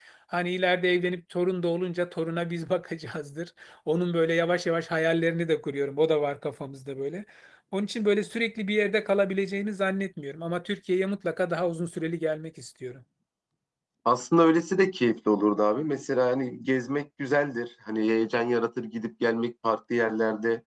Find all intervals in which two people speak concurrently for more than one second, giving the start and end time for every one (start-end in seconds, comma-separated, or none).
none